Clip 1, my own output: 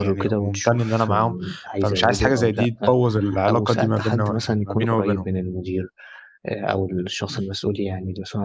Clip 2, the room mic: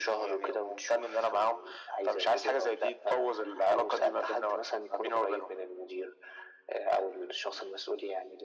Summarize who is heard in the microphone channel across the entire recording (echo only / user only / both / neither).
echo only